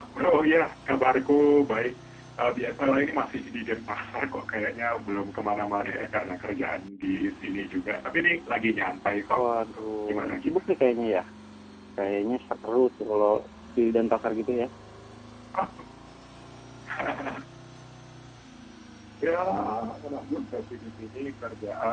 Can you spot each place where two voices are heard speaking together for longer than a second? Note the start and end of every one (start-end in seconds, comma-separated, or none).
9.4-10.6